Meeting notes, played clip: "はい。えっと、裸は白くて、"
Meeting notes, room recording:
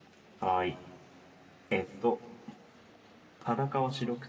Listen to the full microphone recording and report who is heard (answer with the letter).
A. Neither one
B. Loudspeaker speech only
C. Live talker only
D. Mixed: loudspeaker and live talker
B